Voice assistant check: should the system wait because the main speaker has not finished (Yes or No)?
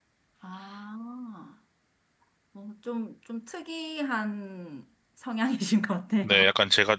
No